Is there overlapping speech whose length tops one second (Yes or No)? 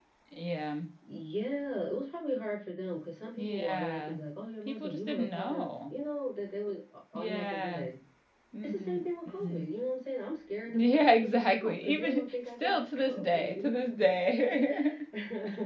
Yes